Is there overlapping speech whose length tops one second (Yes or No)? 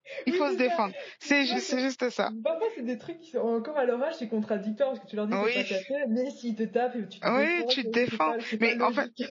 Yes